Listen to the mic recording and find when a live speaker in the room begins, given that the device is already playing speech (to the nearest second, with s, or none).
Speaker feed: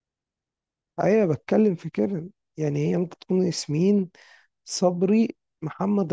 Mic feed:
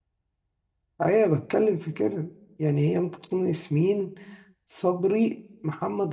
none